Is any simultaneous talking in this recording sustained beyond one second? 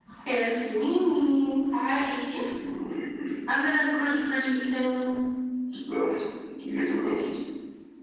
No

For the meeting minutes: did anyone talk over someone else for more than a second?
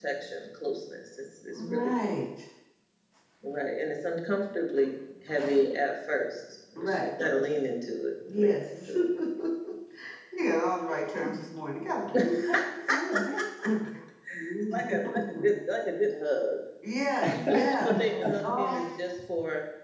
Yes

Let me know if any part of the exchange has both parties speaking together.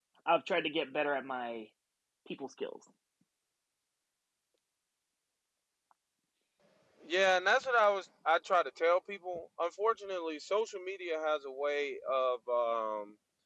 No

